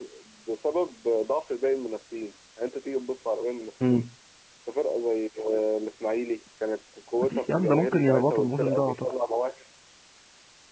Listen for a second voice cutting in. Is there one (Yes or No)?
Yes